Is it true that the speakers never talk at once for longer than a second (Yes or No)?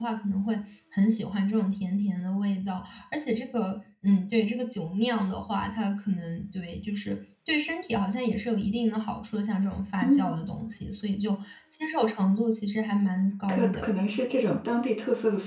Yes